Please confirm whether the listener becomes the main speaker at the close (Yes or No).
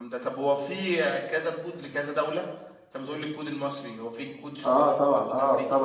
Yes